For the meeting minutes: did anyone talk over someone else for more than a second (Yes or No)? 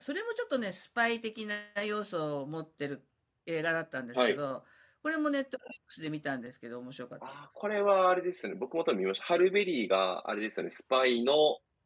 No